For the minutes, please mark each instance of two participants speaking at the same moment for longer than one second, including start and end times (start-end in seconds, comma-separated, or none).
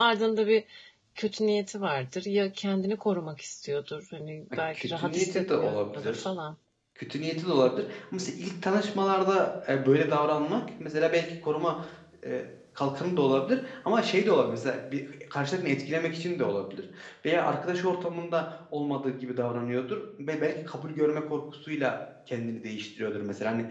4.7-6.3